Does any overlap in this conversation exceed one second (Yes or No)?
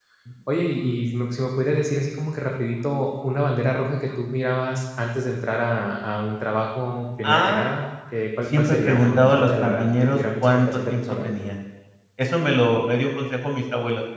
Yes